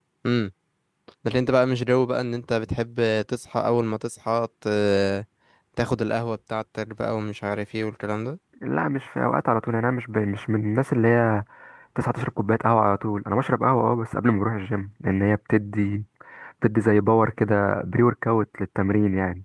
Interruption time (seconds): none

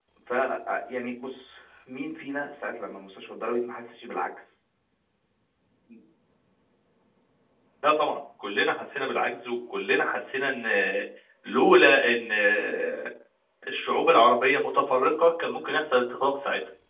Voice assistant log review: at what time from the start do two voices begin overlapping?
none

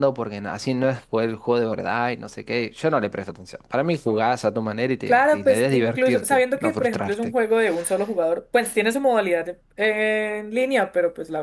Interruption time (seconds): 5.1 s

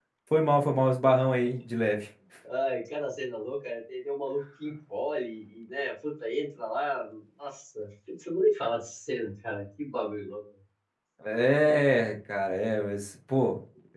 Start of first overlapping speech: none

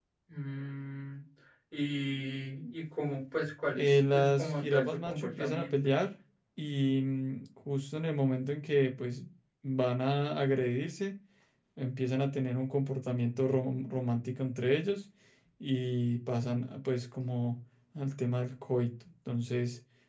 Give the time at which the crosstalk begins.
3.7 s

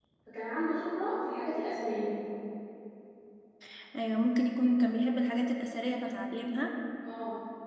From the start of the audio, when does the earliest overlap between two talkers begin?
none

